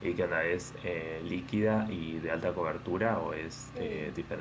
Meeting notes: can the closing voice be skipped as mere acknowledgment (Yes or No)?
No